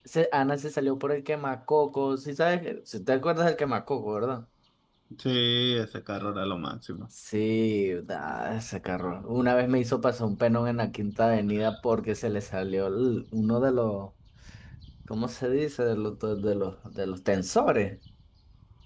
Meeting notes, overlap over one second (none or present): none